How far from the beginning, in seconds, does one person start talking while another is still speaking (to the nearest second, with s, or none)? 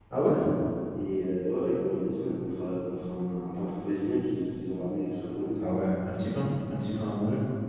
none